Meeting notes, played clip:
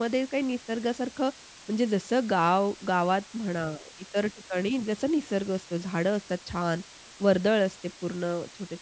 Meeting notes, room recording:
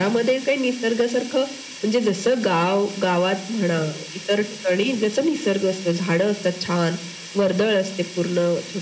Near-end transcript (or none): none